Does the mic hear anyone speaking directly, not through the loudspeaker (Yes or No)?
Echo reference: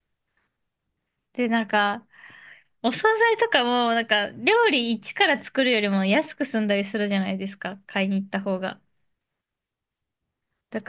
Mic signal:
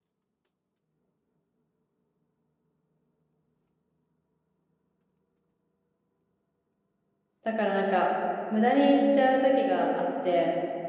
Yes